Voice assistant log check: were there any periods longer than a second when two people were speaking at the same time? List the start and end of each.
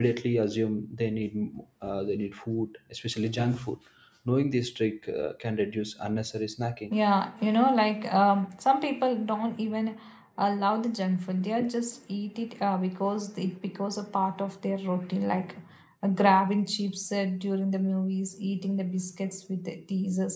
none

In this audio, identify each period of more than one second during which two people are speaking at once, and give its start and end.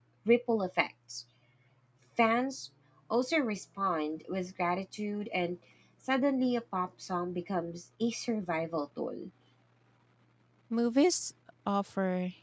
none

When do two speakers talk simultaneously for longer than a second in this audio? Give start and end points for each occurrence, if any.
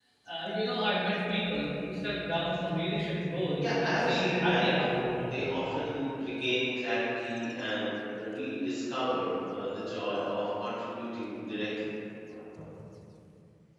3.6-5.4

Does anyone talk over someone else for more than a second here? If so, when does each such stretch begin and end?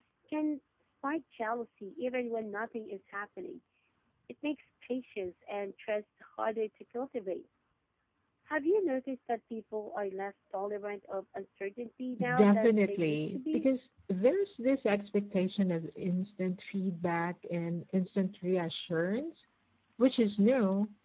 12.3-13.6

